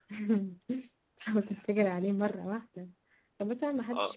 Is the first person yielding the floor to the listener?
No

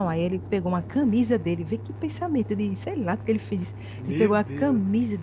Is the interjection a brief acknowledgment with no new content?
Yes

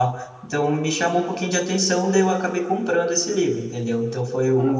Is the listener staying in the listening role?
Yes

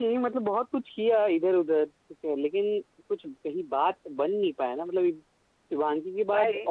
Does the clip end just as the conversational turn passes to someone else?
No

